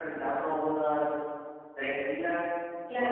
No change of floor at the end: No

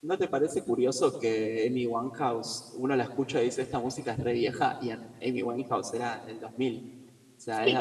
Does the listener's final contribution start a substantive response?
Yes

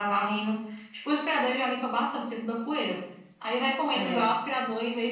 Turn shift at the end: No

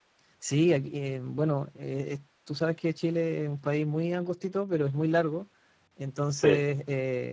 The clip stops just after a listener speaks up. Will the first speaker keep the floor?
Yes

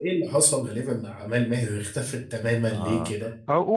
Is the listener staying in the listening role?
No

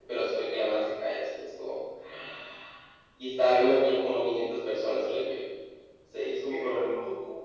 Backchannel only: No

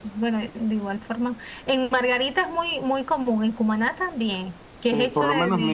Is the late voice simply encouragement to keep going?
No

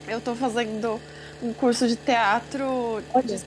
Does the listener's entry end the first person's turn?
No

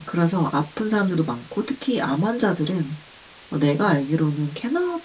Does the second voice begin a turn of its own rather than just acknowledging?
No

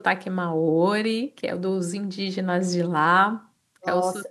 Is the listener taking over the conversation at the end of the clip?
Yes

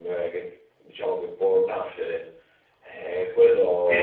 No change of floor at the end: Yes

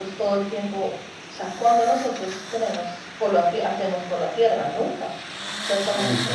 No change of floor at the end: Yes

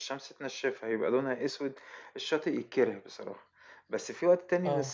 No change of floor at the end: Yes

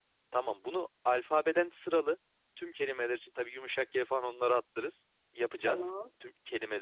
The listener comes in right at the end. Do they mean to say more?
No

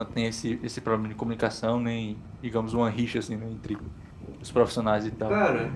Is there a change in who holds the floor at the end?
Yes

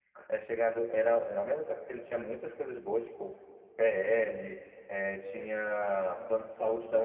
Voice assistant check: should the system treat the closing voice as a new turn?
No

